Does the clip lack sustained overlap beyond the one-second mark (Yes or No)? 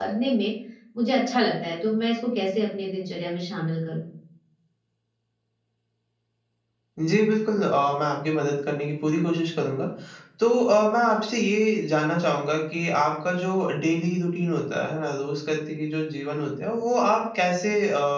Yes